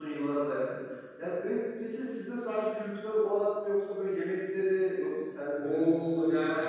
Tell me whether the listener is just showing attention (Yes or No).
No